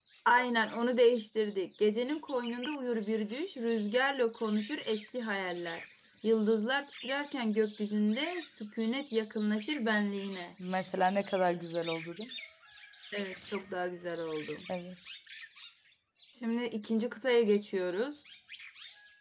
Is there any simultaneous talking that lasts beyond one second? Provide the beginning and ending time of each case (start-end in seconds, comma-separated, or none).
none